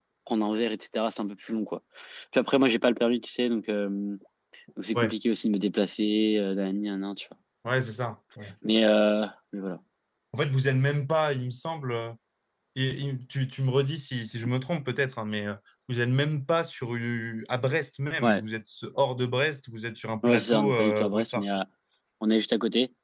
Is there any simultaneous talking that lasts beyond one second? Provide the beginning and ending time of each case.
20.2-21.4

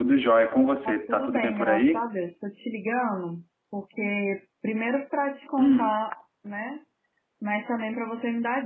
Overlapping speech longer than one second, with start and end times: 0.8-2.1

